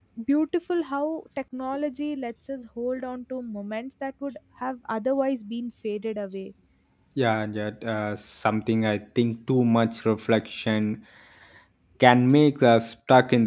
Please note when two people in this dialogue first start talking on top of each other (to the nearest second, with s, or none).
none